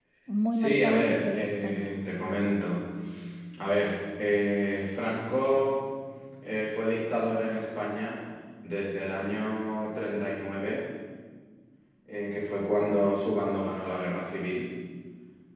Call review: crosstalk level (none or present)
present